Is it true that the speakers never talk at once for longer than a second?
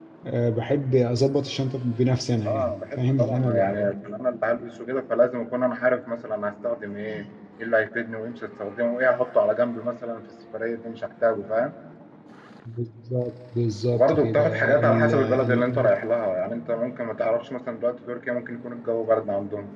No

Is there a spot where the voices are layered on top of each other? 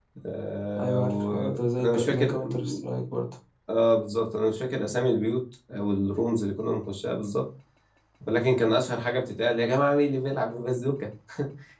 Yes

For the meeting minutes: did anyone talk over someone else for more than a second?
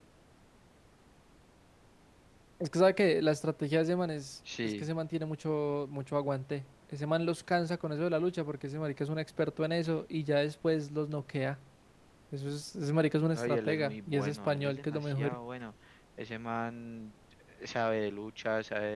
Yes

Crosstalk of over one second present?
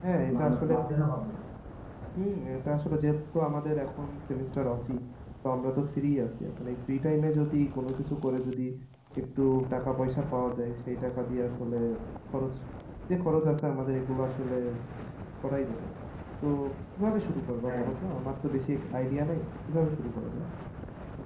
No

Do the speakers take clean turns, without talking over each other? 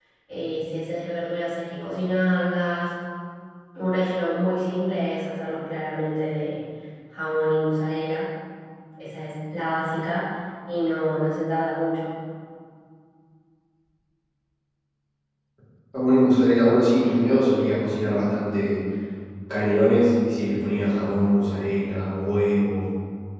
Yes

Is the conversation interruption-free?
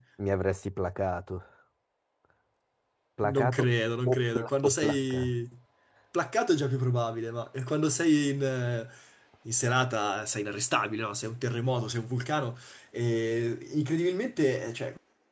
No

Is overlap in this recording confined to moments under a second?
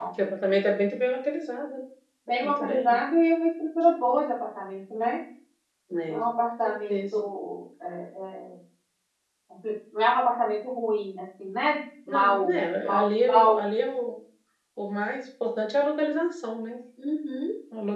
No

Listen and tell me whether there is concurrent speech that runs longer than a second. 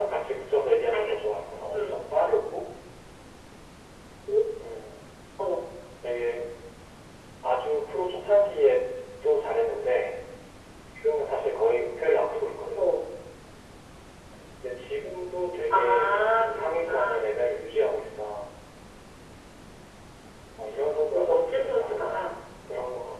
Yes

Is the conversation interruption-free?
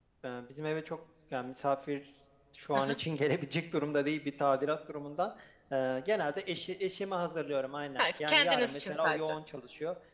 No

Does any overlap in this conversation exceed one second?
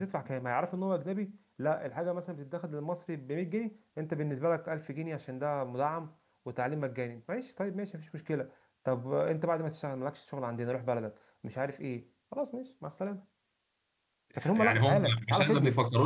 Yes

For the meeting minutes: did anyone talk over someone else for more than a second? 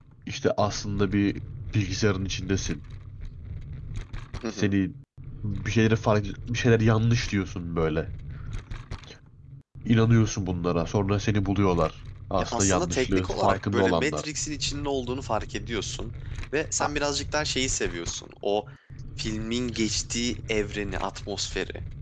Yes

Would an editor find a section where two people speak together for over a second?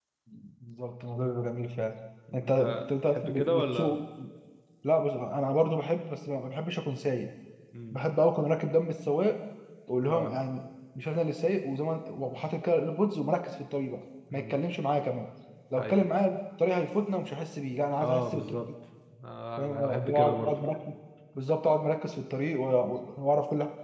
Yes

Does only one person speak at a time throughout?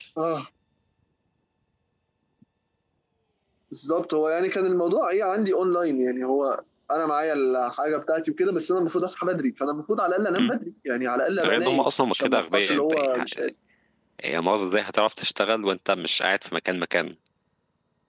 No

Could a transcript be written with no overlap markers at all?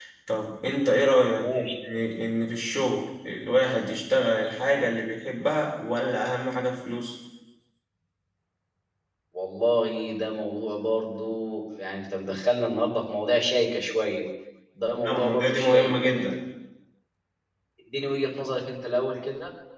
No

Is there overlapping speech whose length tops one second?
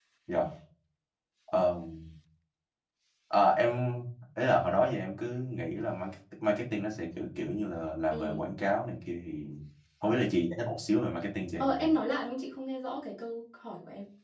No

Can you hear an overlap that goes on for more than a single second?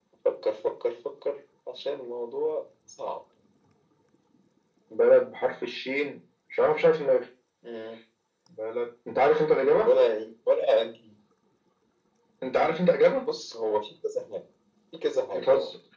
No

